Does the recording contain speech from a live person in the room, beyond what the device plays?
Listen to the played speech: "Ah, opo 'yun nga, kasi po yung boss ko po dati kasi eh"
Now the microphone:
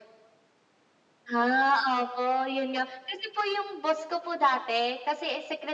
No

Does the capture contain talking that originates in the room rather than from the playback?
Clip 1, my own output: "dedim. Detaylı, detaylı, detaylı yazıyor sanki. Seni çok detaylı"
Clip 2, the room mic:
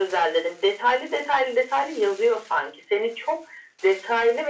No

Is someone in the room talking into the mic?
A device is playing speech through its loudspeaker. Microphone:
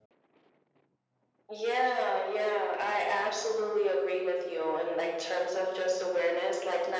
No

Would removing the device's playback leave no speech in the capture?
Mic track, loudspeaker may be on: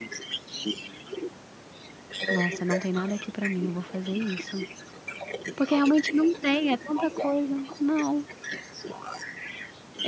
No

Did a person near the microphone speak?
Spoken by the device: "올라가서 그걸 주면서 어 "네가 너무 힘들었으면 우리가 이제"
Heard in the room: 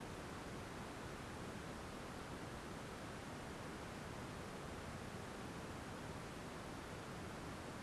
No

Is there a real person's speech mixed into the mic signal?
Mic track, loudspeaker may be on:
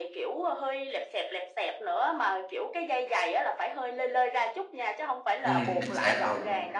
Yes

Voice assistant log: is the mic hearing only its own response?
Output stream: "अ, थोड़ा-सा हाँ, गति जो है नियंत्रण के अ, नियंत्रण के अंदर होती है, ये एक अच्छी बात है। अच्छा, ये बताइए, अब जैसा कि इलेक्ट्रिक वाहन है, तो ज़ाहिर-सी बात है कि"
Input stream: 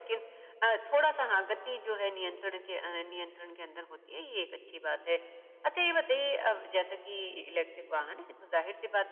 Yes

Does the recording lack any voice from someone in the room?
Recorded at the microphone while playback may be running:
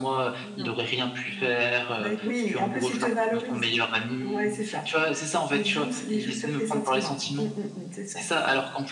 No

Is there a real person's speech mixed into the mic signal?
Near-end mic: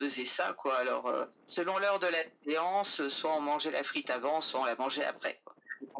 No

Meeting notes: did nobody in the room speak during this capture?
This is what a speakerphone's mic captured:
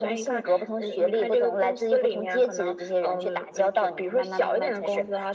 Yes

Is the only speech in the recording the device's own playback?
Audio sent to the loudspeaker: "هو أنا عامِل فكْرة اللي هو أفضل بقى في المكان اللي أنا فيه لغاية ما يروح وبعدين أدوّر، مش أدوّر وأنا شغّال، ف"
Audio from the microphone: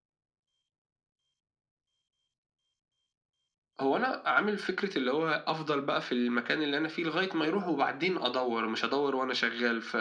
Yes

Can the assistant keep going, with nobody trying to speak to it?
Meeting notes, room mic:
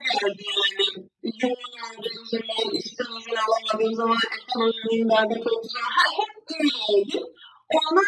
Yes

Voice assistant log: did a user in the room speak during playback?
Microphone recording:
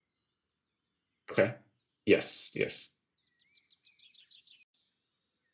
Yes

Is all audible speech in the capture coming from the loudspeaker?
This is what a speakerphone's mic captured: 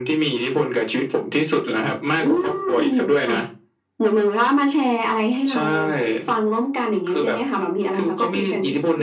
Yes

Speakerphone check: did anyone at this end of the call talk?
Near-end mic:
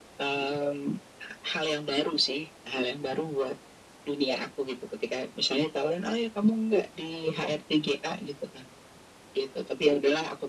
No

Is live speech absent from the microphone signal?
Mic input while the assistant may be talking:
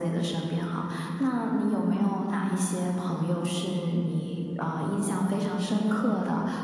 Yes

